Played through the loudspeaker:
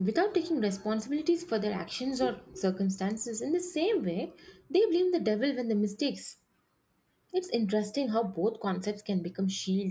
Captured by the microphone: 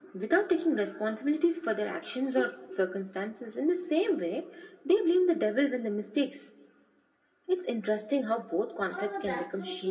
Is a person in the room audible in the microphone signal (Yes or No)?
Yes